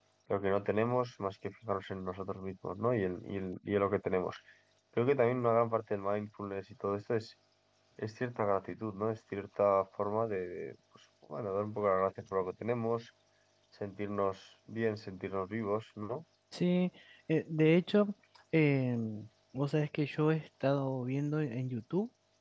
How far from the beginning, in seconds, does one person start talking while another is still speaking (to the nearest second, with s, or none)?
none